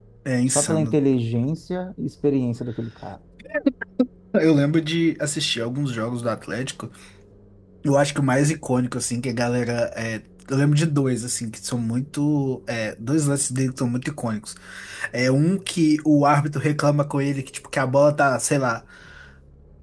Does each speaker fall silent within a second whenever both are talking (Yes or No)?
Yes